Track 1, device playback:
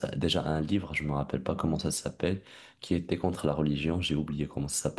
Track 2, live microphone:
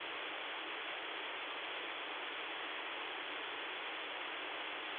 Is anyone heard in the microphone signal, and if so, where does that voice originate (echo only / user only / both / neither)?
neither